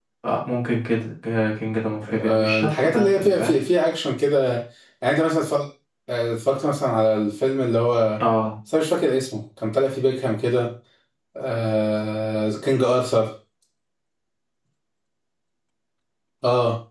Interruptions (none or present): present